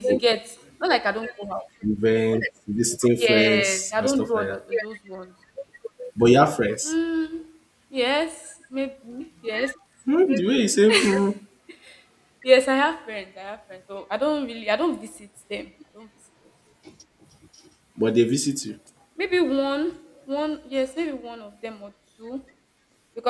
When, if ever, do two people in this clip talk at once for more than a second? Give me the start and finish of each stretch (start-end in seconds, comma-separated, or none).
3.2-4.6